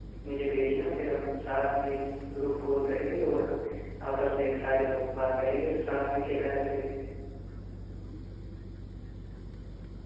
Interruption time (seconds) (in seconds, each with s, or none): none